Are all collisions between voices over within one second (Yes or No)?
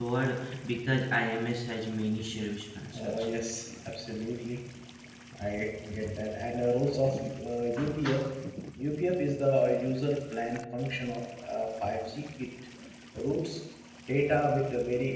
Yes